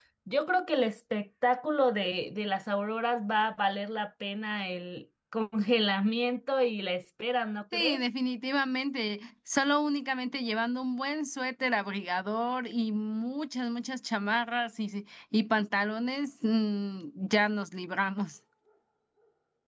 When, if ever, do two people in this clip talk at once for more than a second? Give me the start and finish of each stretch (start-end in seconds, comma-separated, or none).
none